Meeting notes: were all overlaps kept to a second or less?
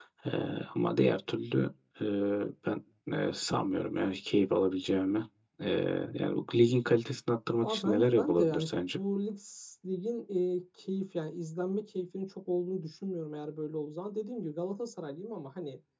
No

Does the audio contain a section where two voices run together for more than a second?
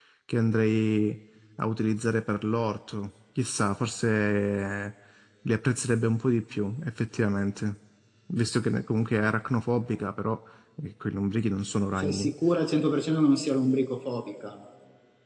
No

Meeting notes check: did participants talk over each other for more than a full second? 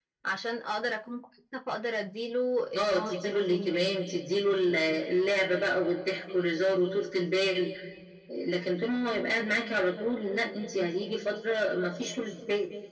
Yes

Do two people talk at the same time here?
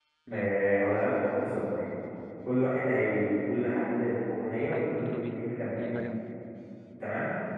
Yes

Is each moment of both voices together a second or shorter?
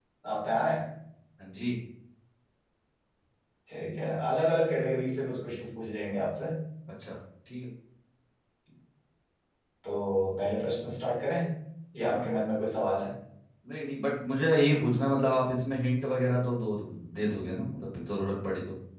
Yes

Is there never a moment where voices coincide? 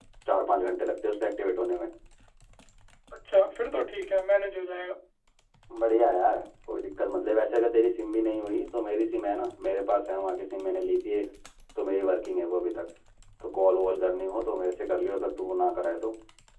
Yes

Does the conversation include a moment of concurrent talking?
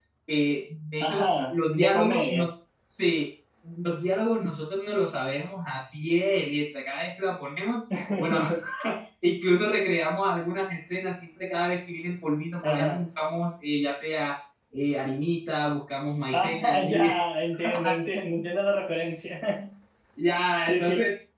Yes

